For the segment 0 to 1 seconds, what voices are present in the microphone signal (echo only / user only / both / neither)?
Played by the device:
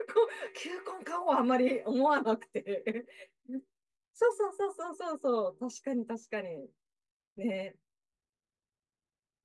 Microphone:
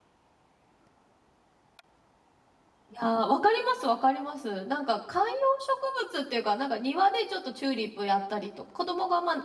neither